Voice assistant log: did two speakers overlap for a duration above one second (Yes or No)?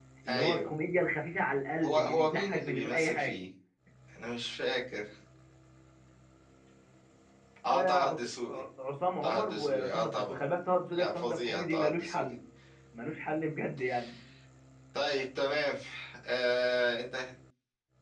Yes